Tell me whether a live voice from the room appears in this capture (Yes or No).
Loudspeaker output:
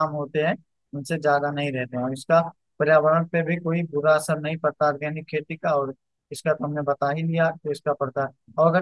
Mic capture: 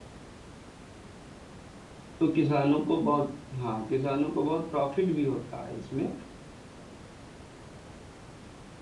Yes